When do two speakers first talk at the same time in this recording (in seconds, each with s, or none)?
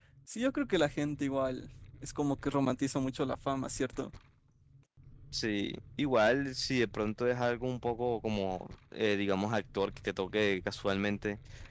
none